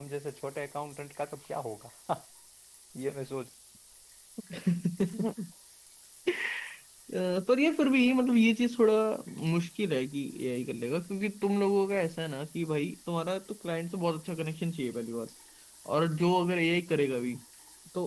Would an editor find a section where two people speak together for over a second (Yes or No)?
No